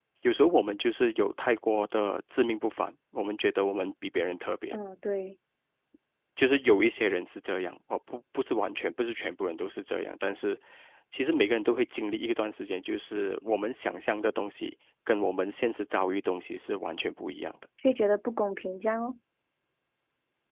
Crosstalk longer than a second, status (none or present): none